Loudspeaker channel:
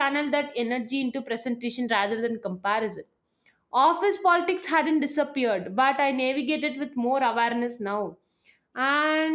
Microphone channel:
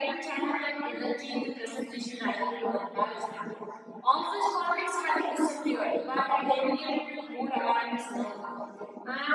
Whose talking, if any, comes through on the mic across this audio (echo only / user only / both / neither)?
echo only